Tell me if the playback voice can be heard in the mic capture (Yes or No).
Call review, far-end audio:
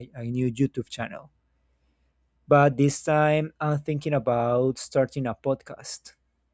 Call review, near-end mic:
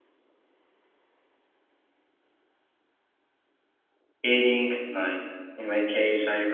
No